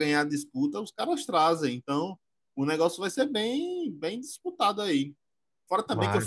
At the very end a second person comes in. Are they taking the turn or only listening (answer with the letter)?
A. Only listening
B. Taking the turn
A